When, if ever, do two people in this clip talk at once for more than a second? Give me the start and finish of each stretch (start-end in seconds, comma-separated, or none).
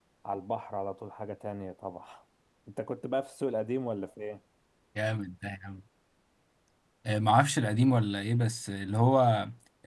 none